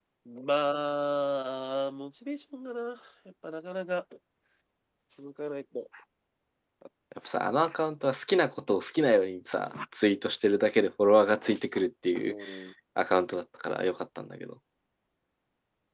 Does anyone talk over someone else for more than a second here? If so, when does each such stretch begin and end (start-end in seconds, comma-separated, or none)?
none